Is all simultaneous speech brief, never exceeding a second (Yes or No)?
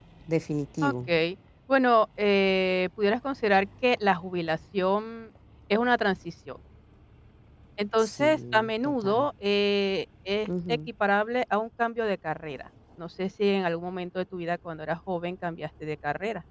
No